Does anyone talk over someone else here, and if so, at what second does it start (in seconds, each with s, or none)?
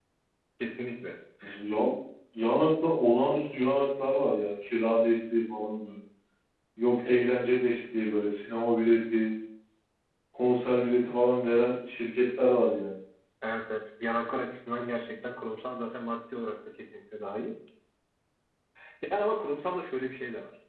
none